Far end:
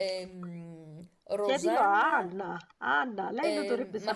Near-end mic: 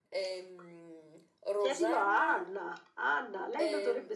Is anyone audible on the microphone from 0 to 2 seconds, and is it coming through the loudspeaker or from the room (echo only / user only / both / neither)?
echo only